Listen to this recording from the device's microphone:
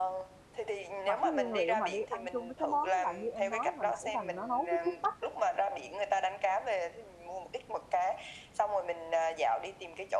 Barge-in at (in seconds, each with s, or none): 1.0 s